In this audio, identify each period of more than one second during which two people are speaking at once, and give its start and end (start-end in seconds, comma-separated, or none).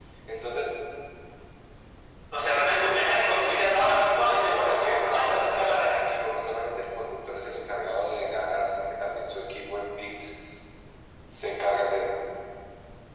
4.5-5.9